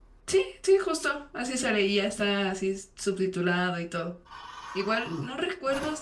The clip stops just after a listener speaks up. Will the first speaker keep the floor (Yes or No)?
Yes